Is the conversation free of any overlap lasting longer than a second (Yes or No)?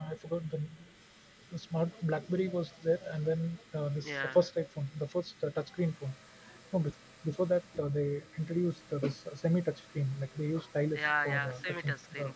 No